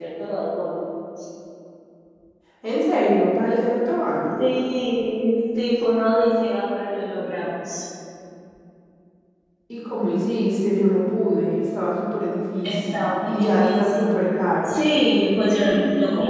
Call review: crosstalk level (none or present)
present